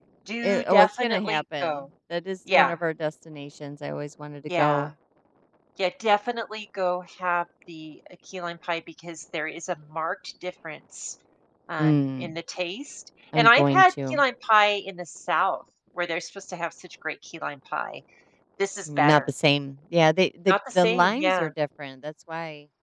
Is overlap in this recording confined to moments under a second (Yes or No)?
No